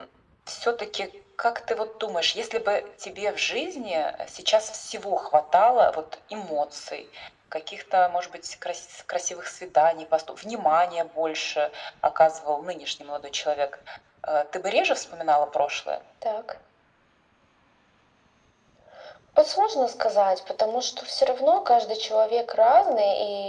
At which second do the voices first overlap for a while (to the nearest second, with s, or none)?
none